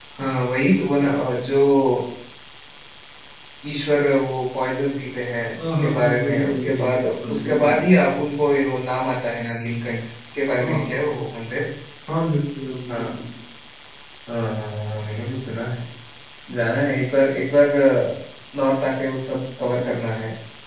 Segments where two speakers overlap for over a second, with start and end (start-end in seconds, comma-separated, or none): 5.6-7.9